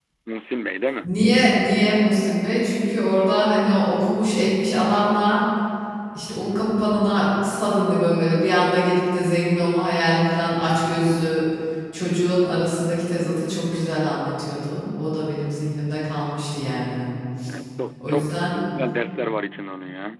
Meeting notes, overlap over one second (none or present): none